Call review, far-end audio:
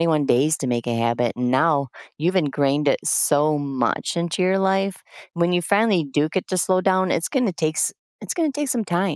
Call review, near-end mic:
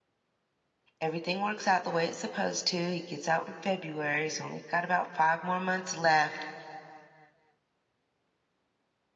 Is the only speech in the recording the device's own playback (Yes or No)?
No